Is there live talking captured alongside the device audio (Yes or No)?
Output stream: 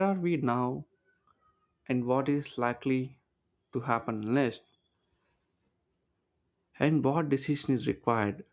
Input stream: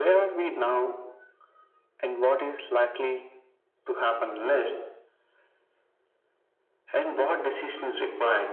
No